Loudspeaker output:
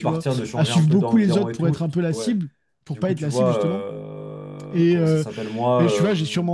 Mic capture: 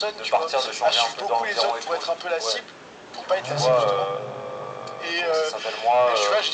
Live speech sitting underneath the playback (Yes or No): Yes